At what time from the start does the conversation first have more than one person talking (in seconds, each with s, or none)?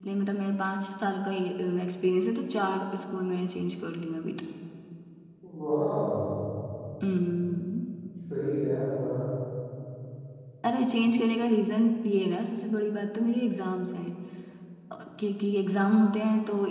none